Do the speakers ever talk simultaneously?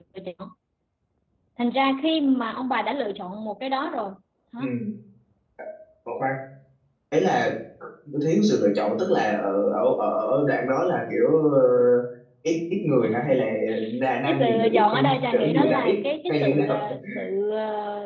Yes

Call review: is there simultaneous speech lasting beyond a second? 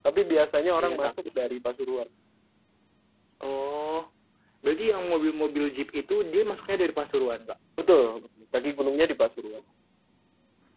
No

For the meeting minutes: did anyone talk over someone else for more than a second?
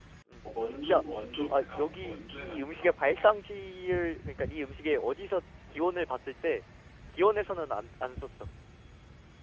Yes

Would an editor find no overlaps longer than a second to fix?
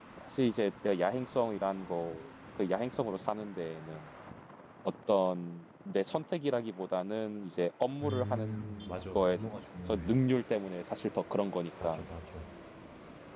No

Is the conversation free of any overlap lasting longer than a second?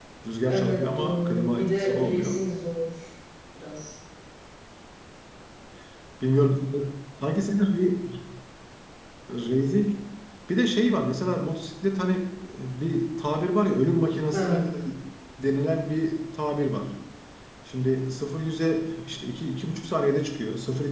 No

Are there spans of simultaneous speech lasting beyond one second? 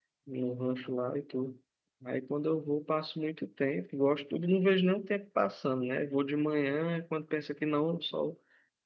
No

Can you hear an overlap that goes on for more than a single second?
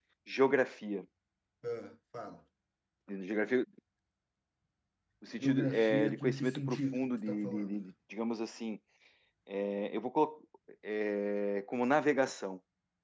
Yes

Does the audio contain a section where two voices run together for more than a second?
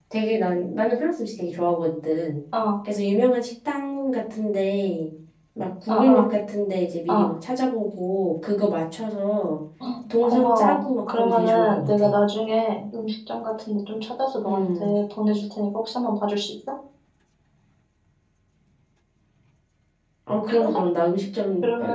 Yes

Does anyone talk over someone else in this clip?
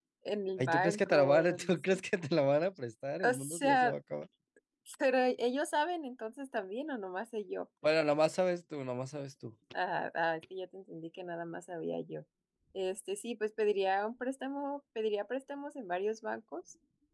Yes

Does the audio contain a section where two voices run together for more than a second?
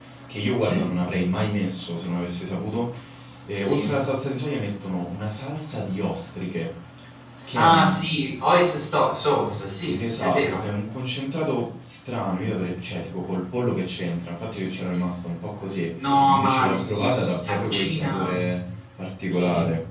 Yes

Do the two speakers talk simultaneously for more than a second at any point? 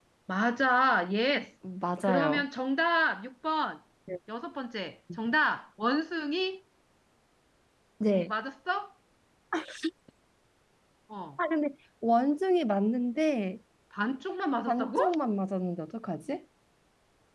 No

